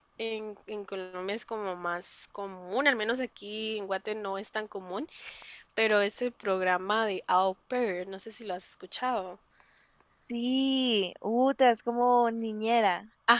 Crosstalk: none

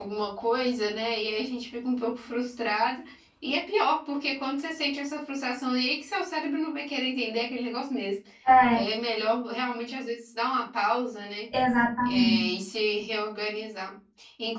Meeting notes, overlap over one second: none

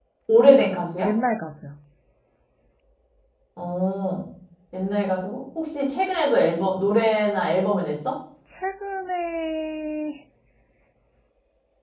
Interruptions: none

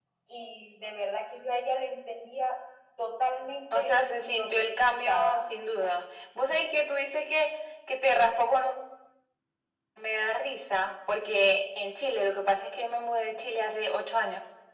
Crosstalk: present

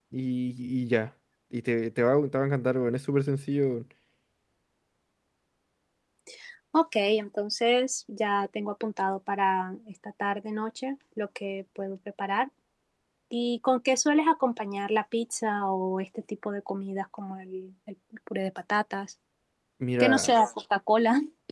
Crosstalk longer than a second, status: none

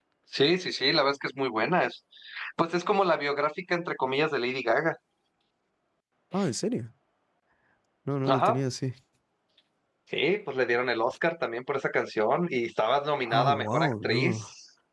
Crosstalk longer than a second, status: present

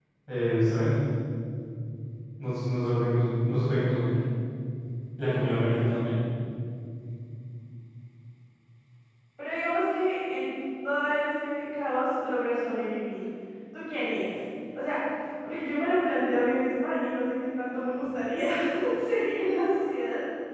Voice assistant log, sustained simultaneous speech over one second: none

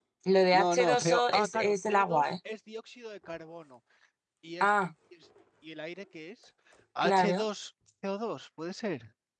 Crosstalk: present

